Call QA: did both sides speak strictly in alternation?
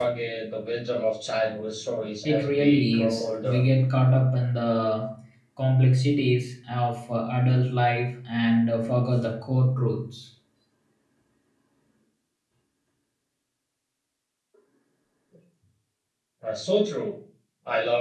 No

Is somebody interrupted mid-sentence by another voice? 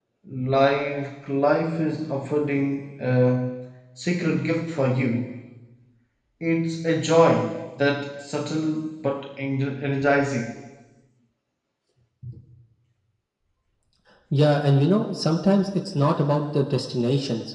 No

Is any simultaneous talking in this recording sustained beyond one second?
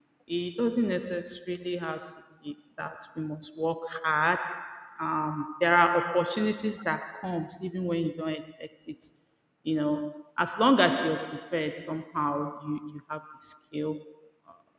No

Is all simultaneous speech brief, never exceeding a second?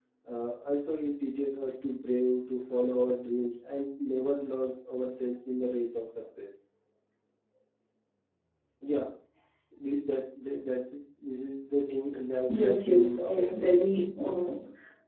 No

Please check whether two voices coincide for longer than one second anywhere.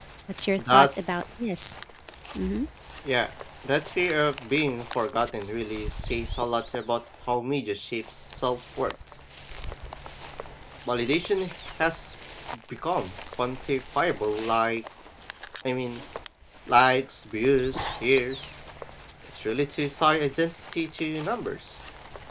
No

